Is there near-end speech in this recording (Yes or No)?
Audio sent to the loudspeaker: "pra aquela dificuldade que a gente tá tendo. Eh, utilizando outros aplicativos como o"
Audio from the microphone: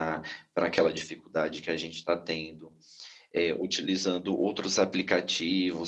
No